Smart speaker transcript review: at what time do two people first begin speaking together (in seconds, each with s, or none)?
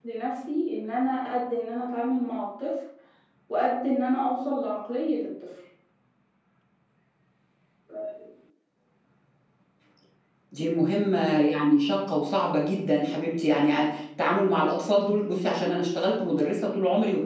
none